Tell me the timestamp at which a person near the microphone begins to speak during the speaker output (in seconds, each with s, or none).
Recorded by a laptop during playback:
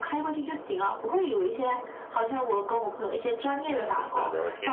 3.7 s